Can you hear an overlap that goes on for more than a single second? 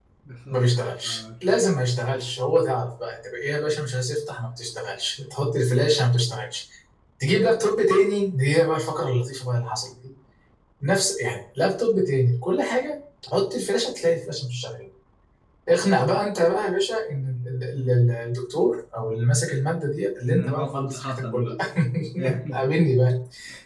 Yes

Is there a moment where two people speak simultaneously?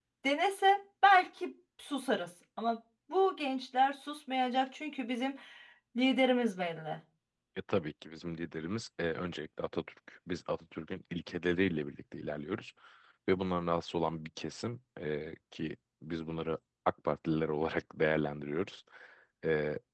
No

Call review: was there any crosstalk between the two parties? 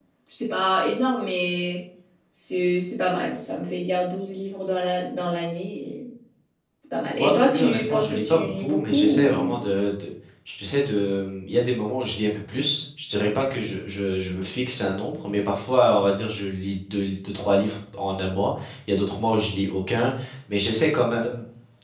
Yes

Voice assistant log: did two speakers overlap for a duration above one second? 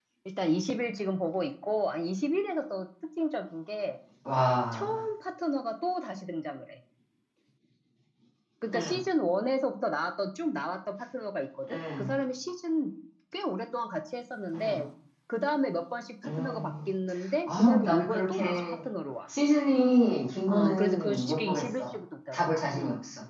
Yes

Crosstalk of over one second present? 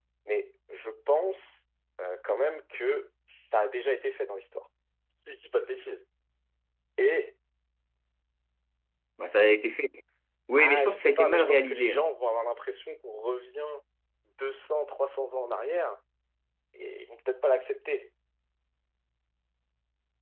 Yes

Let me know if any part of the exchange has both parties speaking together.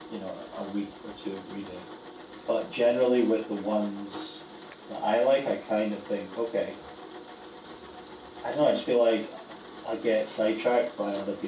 No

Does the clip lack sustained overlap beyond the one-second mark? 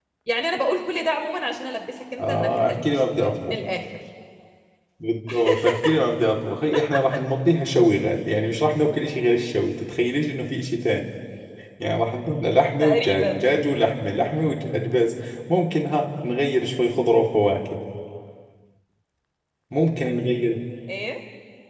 No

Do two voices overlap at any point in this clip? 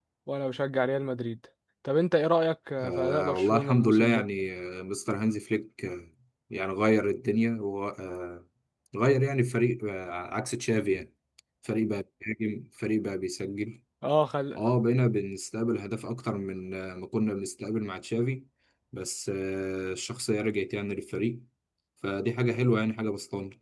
Yes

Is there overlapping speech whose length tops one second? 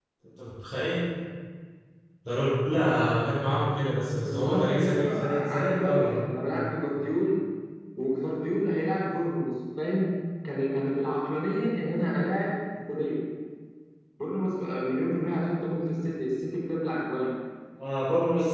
Yes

